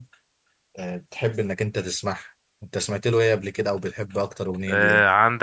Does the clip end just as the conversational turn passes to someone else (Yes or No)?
Yes